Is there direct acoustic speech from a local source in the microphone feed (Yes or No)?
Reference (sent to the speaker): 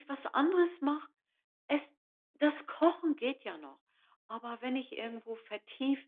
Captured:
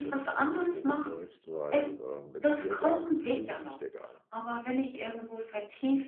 Yes